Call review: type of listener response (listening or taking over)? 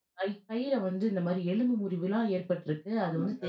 listening